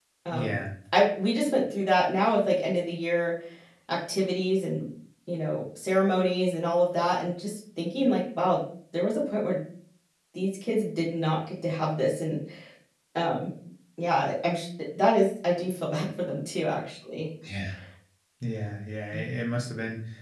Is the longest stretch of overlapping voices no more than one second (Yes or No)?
Yes